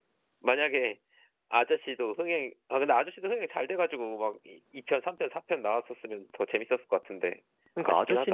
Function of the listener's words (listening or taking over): taking over